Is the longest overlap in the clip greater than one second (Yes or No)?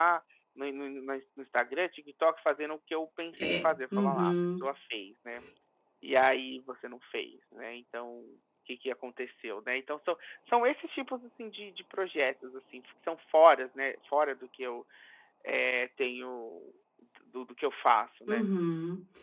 Yes